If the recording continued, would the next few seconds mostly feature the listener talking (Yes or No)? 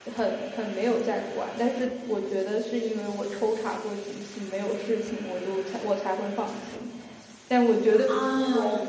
No